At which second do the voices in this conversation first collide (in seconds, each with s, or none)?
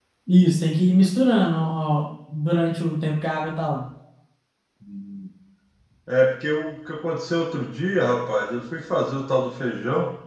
none